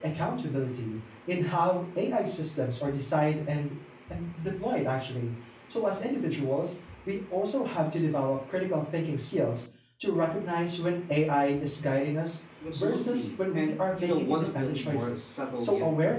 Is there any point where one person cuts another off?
Yes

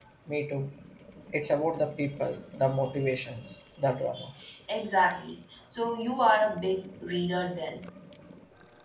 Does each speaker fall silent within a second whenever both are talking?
Yes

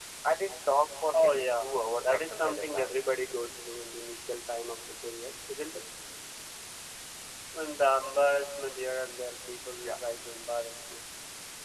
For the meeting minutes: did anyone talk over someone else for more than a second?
Yes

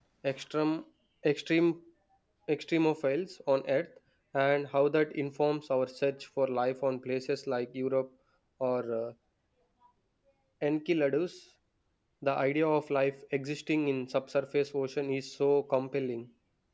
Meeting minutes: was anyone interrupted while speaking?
No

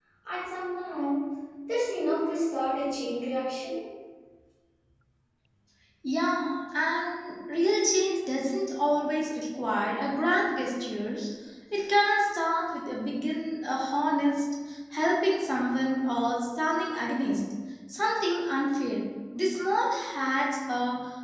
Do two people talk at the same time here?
No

